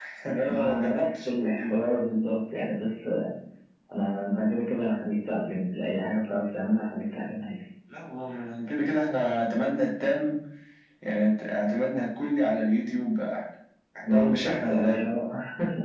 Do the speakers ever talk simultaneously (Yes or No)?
Yes